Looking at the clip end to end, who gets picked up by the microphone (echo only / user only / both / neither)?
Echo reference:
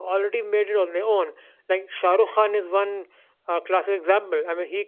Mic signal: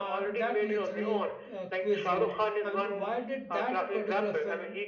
both